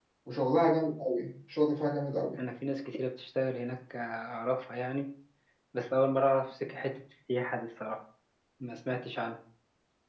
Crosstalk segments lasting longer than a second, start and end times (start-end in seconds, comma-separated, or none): none